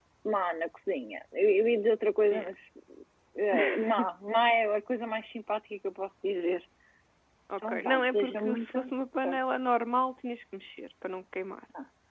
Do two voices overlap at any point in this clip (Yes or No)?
Yes